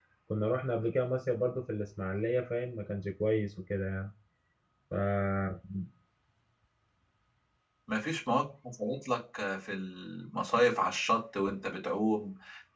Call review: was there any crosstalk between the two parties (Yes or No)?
No